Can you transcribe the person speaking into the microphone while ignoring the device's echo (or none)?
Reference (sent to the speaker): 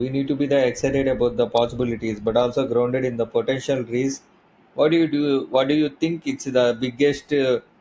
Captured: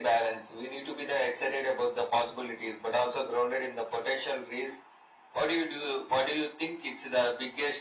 none